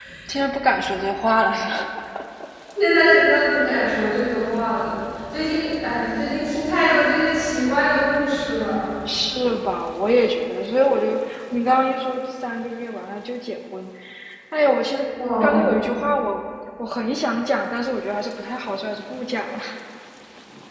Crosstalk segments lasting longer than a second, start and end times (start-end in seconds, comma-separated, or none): none